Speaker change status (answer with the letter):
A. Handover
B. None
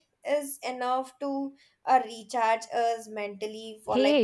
A